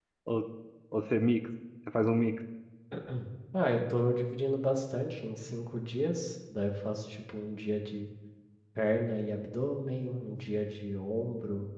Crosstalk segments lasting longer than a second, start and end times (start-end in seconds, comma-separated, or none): none